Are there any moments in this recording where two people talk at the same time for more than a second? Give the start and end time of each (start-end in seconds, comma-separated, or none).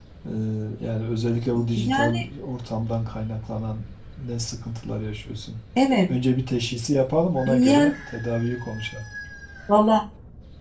none